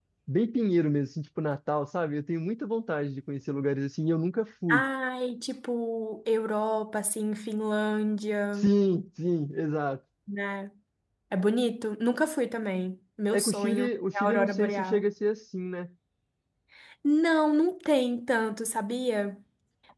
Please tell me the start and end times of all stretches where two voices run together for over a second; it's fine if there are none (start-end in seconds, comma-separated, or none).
13.3-15.1